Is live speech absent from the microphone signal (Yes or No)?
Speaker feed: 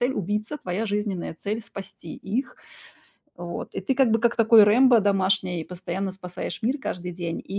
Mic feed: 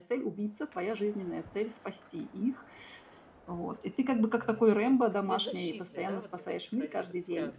No